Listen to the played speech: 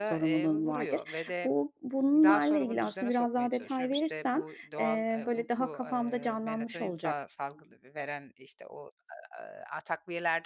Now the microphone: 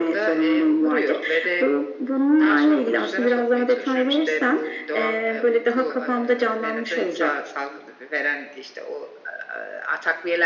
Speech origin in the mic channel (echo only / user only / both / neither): echo only